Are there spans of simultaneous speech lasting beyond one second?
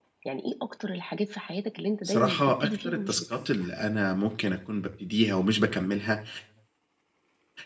Yes, from 2.0 s

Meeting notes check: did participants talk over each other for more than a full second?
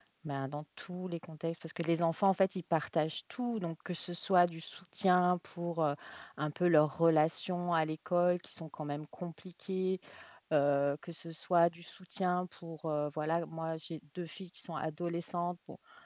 No

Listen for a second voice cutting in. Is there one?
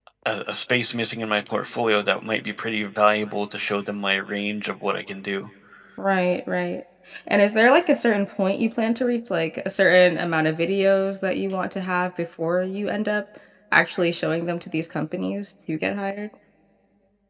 No

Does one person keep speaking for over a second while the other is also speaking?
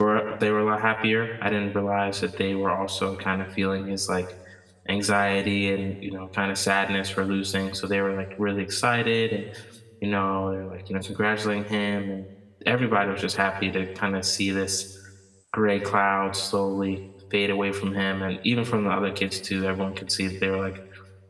No

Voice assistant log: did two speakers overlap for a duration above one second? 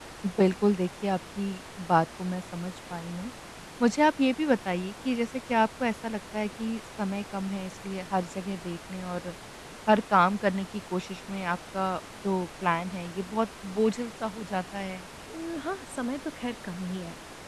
No

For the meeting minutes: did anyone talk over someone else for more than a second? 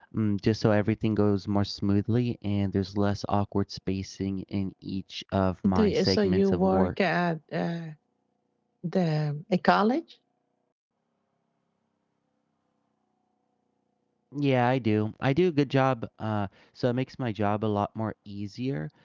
Yes, from 5.6 s

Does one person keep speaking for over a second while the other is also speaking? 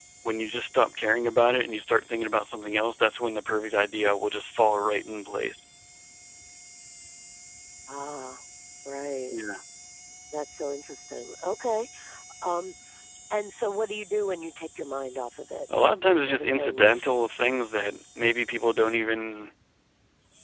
Yes, from 15.7 s

